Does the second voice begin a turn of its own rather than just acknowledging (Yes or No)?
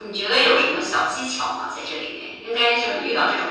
No